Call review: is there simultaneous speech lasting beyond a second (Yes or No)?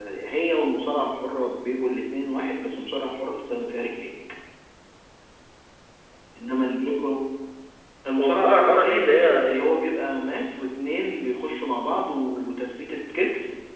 Yes